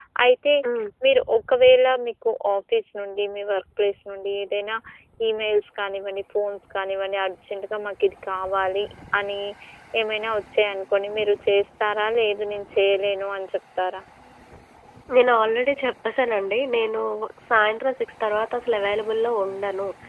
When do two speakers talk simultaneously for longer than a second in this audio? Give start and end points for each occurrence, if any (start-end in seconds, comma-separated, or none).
none